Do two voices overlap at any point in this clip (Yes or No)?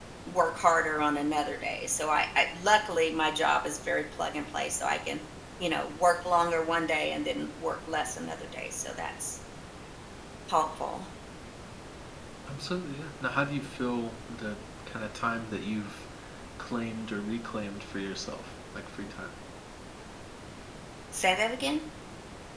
No